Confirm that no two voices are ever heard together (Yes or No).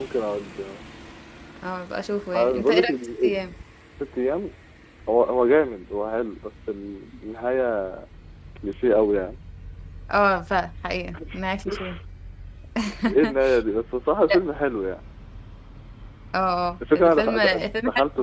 No